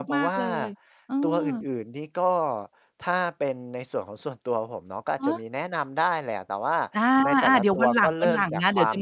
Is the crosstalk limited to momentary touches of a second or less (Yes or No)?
No